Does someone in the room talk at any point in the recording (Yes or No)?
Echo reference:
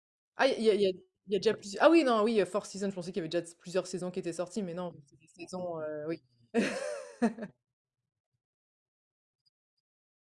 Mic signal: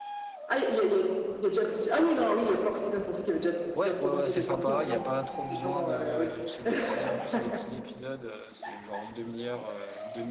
Yes